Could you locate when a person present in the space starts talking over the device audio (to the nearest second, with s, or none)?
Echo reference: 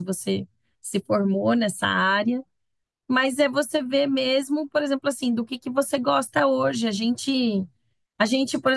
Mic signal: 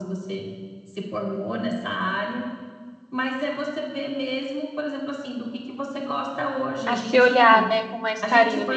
7 s